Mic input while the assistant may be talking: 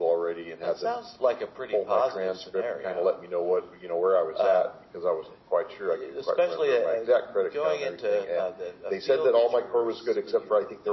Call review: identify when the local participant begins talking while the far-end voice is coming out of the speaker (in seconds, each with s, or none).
none